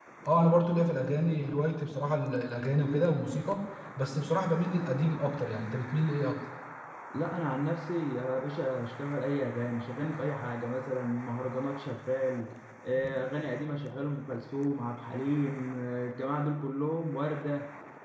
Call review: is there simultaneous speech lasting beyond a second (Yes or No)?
No